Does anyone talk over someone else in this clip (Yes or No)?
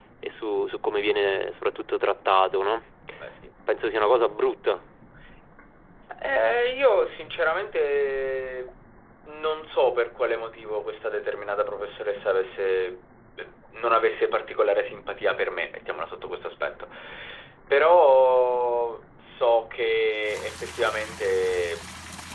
No